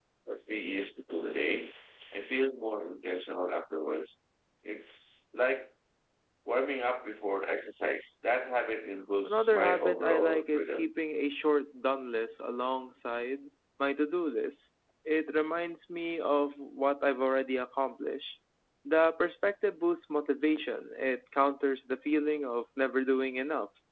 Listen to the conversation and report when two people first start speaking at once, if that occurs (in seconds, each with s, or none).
9.2 s